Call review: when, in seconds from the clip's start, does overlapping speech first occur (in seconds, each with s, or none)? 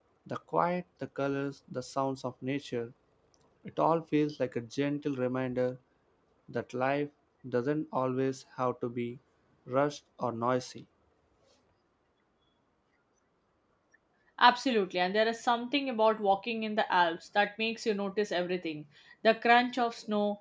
none